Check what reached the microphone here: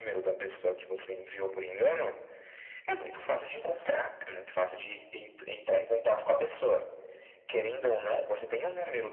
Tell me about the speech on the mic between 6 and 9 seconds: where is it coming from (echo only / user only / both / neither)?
echo only